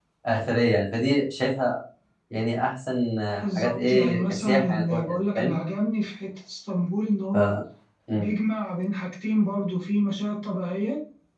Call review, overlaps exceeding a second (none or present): present